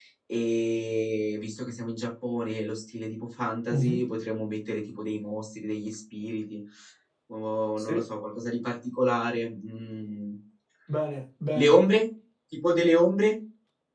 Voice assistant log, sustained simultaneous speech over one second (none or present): none